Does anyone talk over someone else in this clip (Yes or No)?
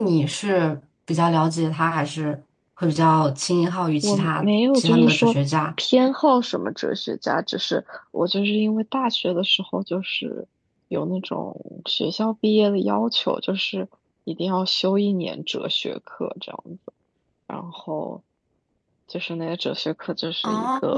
Yes